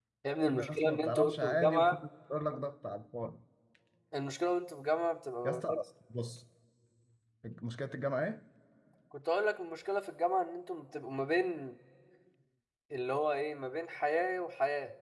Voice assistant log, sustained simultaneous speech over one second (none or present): present